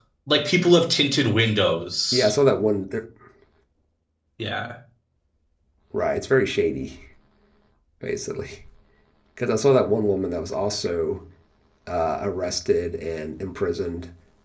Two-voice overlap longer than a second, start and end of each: none

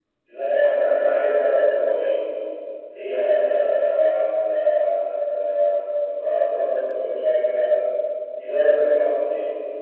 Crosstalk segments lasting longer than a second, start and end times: 0.7-2.1

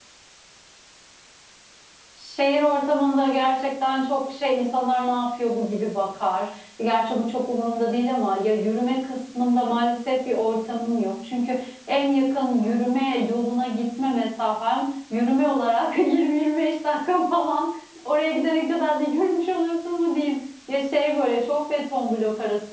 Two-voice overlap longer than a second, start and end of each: none

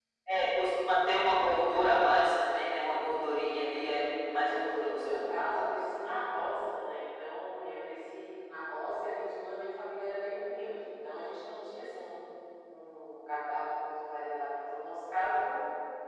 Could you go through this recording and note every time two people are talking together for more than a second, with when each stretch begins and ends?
4.5-5.7

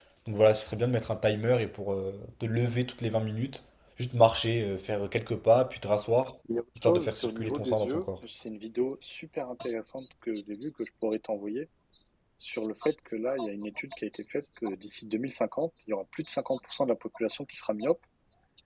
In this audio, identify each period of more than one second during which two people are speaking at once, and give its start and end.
6.8-8.1

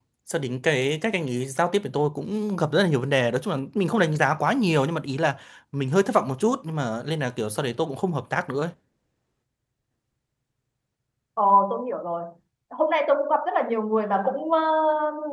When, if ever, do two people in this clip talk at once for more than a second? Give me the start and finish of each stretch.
none

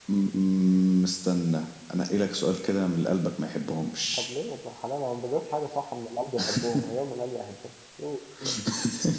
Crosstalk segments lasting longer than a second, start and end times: none

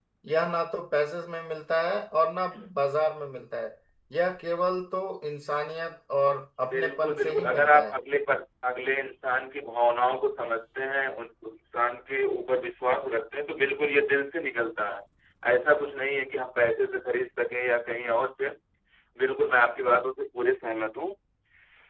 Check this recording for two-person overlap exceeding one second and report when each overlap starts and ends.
6.7-8.0

